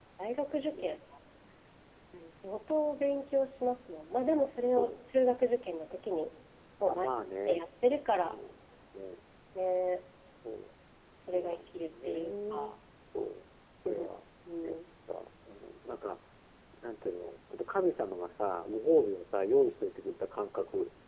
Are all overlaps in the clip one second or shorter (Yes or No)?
No